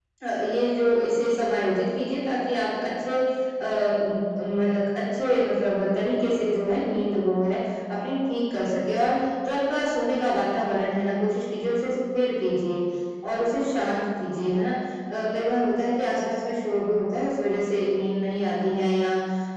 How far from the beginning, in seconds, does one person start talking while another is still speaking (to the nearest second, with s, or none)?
none